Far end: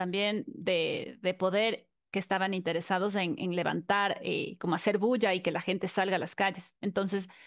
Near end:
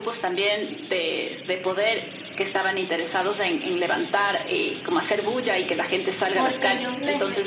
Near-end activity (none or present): present